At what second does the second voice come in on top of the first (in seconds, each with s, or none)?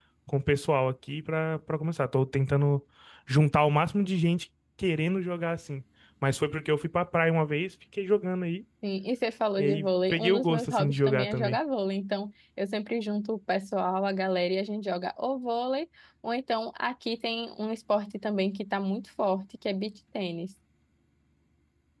9.6 s